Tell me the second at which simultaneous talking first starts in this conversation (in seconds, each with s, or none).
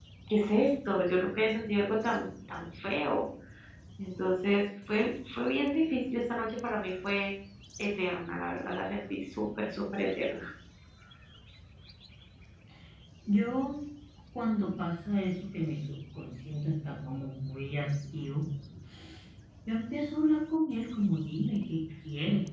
none